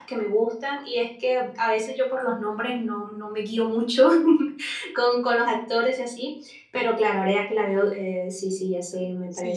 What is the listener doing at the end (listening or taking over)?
taking over